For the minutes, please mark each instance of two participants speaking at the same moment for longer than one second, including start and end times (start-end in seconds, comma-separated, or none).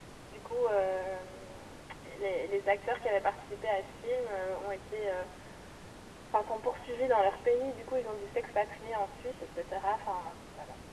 none